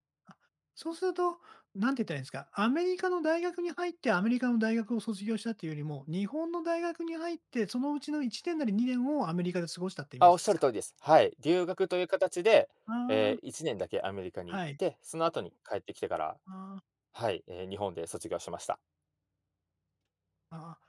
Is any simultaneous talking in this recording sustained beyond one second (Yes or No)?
No